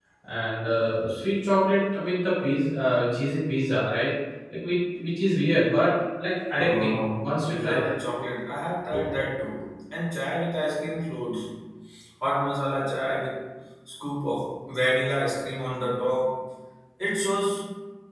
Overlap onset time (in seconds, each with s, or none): 6.5 s